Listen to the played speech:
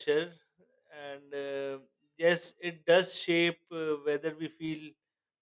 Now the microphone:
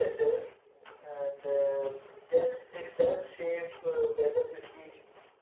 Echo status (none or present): present